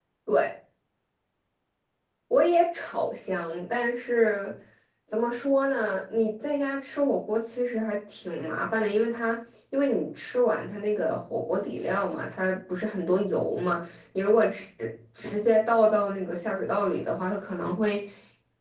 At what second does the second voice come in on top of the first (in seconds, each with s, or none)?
none